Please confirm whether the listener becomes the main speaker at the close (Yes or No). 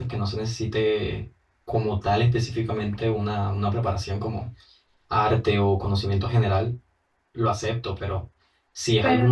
No